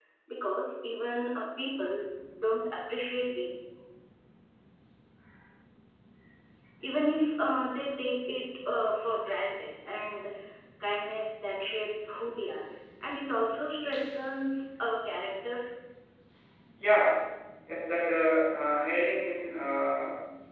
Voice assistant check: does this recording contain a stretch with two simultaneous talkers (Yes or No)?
No